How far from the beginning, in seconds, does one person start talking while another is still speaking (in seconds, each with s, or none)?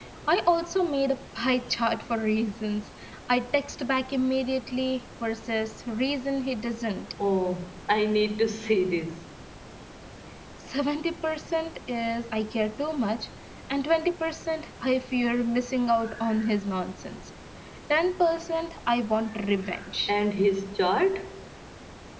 none